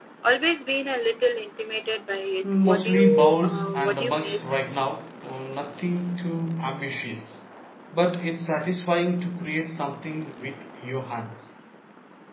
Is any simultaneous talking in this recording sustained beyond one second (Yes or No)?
Yes